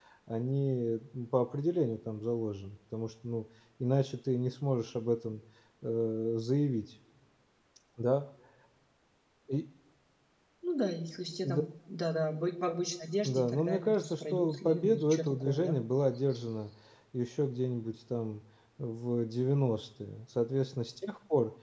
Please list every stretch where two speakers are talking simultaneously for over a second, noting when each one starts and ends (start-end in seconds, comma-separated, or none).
13.2-15.8